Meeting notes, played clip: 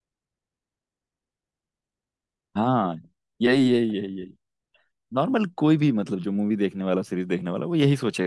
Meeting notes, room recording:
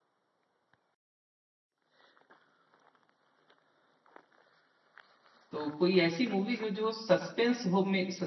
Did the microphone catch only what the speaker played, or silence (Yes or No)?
No